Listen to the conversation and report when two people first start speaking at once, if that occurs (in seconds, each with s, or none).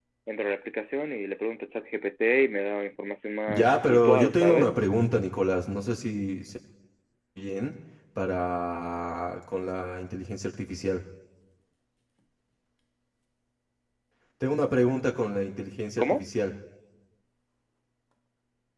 3.5 s